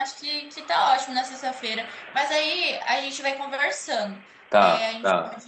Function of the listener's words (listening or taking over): listening